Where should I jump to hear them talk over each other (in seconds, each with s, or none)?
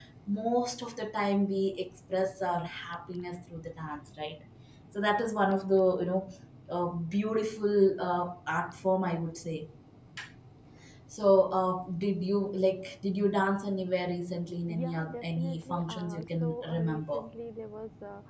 14.7 s